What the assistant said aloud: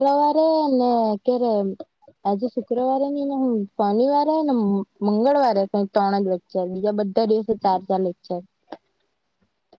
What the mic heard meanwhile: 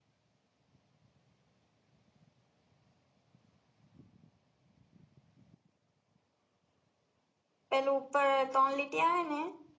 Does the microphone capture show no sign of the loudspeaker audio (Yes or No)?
Yes